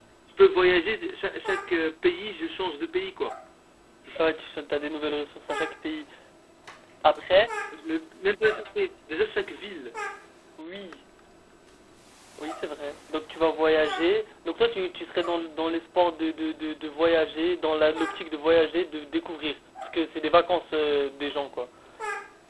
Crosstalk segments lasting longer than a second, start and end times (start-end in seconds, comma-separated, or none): none